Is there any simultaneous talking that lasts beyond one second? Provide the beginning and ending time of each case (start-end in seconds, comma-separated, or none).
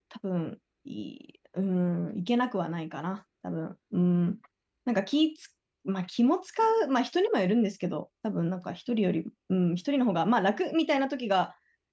none